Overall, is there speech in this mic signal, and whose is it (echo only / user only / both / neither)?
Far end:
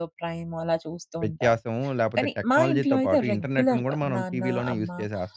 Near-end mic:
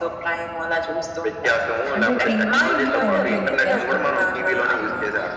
both